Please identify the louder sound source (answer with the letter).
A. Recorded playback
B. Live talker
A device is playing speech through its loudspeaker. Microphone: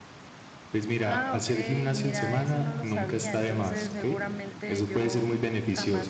A